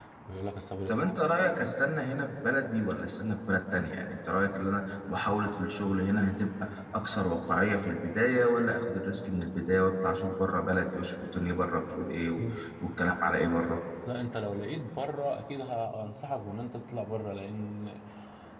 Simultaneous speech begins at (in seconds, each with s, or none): none